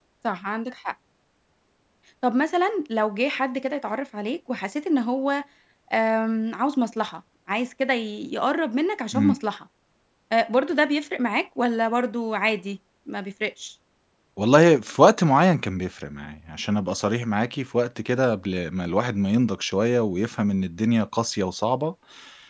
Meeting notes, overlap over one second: none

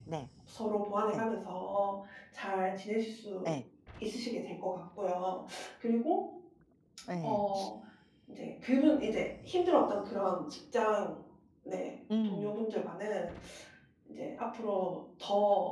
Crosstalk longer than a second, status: none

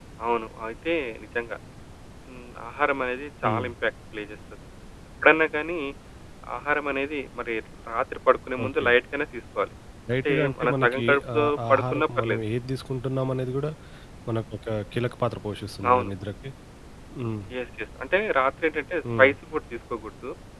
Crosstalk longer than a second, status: present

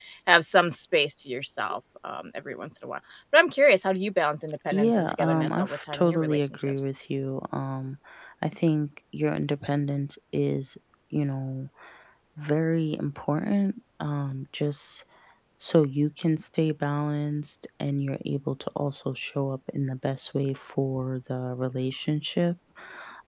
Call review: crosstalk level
present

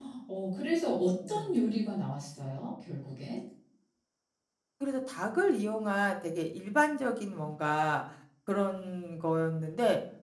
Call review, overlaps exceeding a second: none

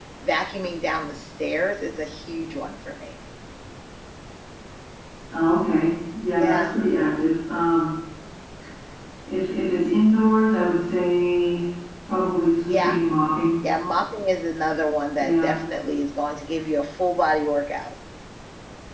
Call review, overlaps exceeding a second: none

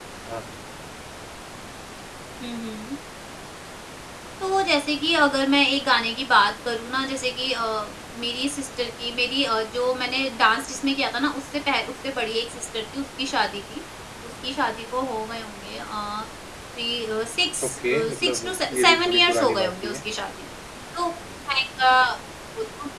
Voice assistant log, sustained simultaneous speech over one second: present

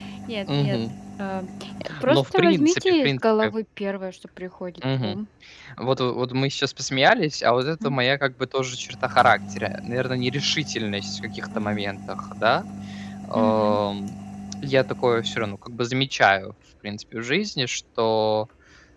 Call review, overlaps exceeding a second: present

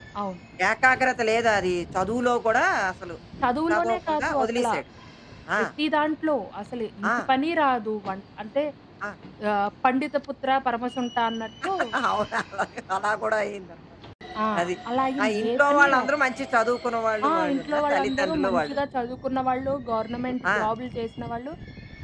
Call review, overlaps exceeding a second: present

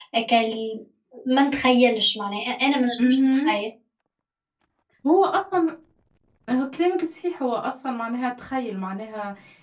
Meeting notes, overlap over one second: none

